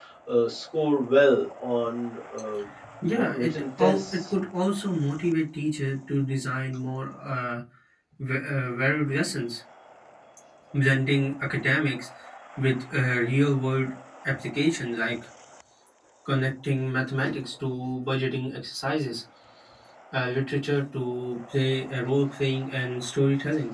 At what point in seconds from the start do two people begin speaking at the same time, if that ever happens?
3 s

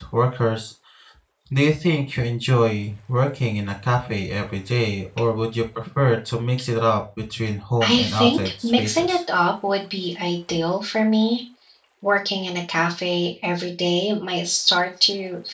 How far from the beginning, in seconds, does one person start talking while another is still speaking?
8 s

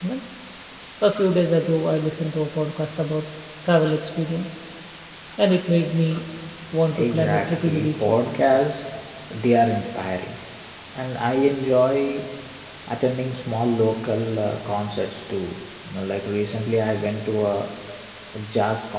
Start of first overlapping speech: 7 s

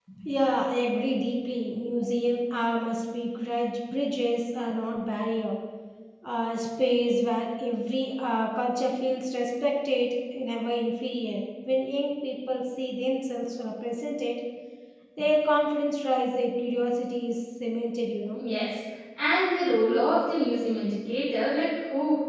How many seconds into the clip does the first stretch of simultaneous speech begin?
none

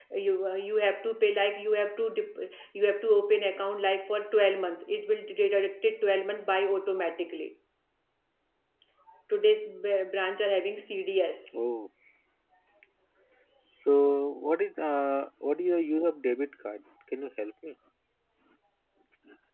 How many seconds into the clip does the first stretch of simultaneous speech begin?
none

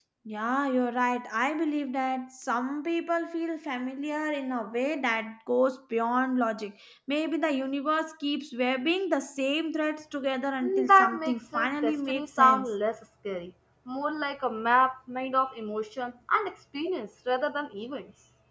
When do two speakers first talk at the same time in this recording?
11 s

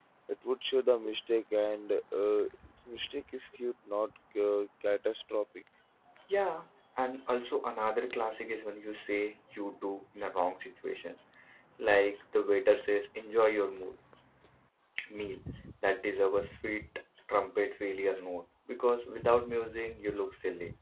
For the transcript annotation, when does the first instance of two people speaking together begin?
none

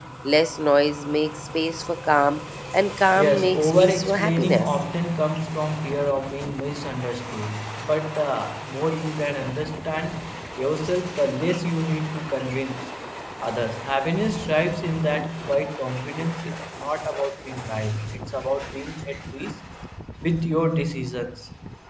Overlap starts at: 3 s

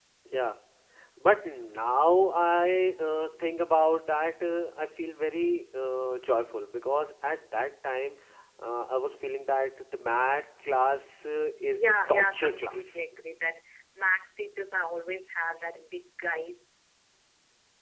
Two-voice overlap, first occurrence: 12 s

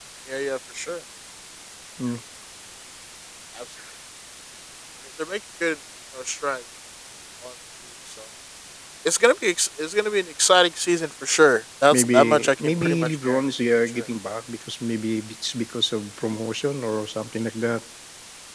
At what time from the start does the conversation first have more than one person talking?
12 s

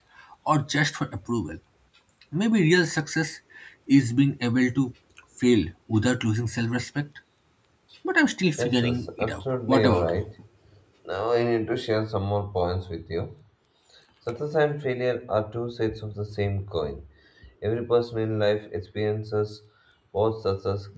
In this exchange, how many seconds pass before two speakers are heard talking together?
9 s

